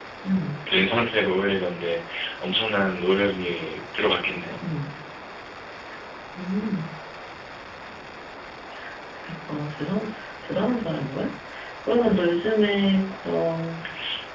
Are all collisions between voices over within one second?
Yes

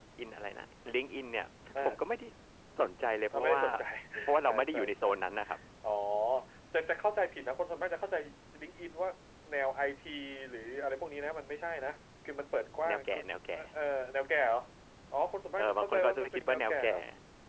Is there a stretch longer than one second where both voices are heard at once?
Yes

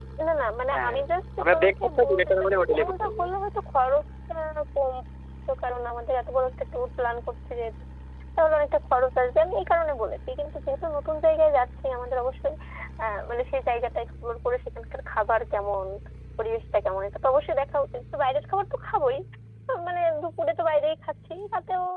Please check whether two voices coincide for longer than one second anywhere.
Yes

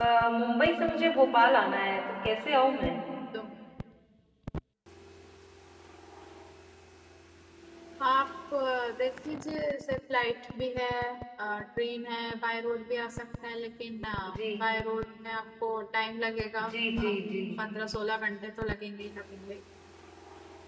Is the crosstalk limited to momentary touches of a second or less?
Yes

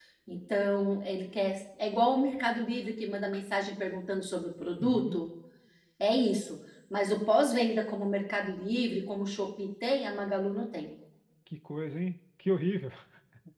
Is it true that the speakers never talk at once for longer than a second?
Yes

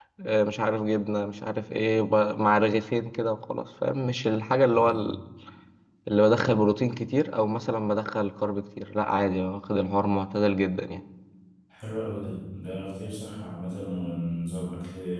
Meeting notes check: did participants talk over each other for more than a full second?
No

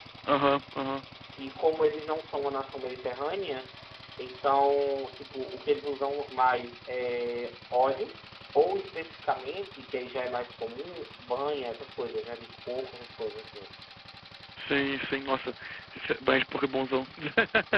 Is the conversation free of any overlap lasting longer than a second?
Yes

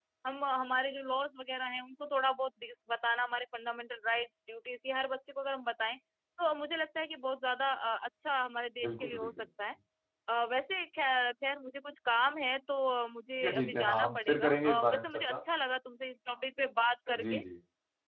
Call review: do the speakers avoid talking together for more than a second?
No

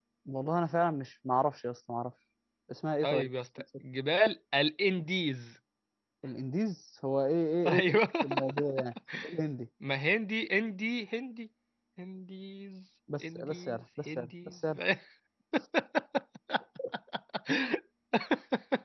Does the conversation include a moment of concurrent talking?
Yes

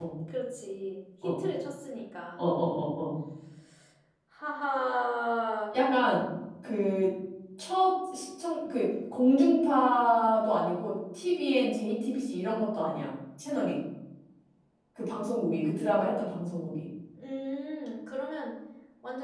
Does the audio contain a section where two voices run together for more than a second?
No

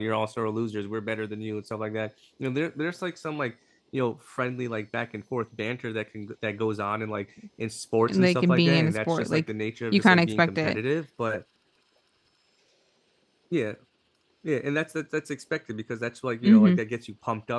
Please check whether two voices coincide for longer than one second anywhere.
Yes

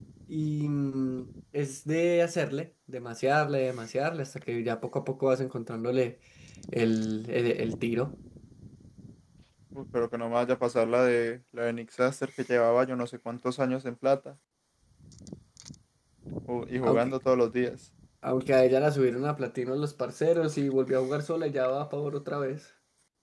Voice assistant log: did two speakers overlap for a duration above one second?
No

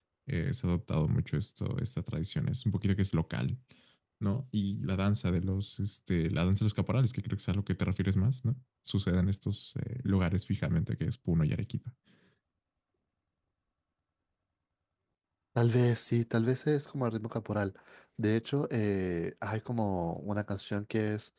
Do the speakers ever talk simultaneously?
No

